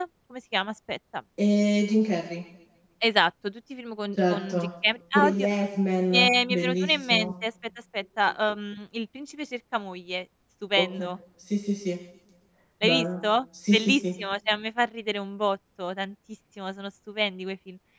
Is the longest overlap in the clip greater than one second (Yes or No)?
Yes